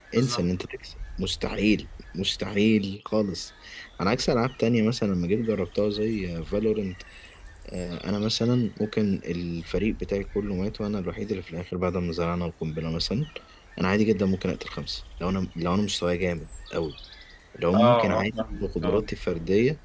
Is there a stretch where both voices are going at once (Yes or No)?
Yes